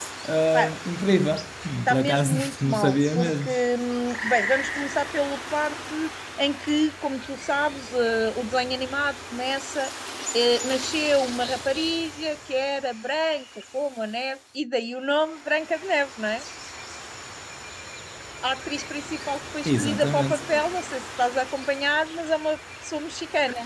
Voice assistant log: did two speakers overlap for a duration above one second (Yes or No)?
Yes